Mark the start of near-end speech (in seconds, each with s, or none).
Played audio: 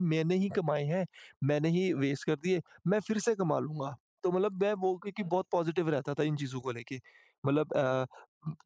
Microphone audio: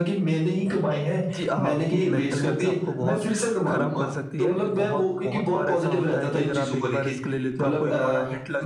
1.3 s